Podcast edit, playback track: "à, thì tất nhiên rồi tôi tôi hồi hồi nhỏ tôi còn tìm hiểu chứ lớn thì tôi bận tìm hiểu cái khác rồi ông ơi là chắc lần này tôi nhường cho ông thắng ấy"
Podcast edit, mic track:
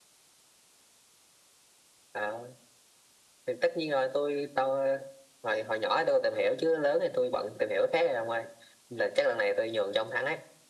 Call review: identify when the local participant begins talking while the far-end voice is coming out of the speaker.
none

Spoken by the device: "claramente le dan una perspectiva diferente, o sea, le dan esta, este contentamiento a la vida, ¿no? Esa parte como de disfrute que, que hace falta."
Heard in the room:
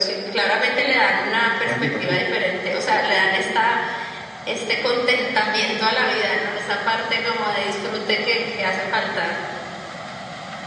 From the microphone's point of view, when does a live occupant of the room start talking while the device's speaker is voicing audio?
1.6 s

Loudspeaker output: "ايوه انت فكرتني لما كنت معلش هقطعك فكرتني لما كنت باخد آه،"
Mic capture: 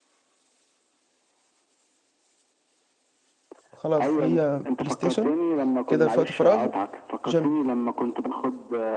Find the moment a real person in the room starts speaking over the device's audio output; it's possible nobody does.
3.7 s

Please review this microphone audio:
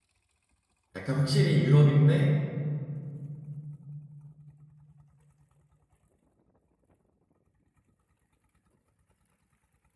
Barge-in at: 0.9 s

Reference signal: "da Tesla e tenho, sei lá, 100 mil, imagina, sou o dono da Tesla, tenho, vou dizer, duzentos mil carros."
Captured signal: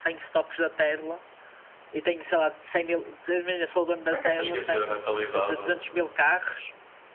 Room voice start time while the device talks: 4.1 s

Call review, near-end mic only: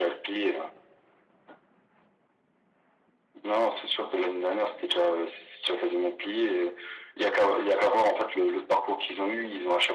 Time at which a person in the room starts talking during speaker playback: none

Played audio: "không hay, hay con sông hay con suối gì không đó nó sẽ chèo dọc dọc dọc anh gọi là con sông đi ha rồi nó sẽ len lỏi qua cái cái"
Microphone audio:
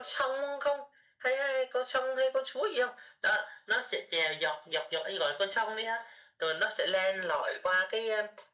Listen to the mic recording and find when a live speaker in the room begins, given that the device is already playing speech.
none

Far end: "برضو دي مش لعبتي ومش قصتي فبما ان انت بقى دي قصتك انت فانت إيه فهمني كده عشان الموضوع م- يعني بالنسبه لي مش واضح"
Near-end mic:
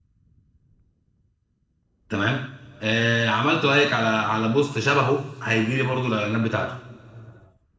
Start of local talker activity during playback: 2.1 s

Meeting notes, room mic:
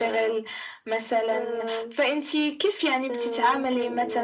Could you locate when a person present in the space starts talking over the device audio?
none

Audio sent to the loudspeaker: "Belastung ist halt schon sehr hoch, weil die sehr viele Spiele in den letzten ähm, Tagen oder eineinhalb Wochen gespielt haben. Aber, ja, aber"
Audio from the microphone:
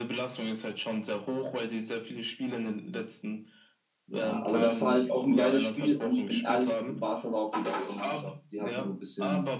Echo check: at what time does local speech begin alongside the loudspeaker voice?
4.1 s

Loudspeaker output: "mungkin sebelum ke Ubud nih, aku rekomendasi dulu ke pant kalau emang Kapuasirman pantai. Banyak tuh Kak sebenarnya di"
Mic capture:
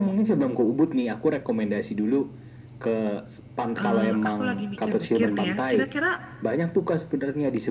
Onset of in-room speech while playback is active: 3.8 s

